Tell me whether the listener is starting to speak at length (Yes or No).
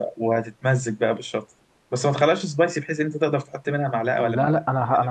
Yes